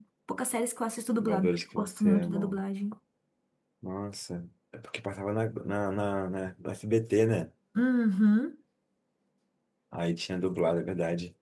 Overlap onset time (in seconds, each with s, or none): 1.2 s